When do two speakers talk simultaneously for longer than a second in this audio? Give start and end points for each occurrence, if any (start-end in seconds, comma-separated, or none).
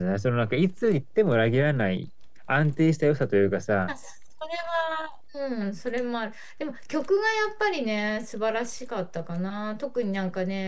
none